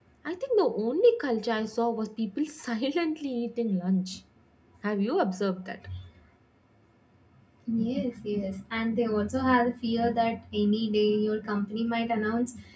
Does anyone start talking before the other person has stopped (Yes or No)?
No